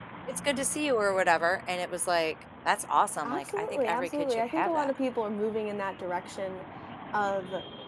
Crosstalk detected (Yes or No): Yes